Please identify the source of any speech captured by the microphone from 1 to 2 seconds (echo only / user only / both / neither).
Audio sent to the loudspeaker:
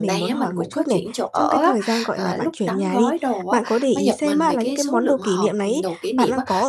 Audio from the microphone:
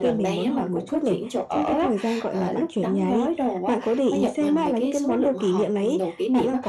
echo only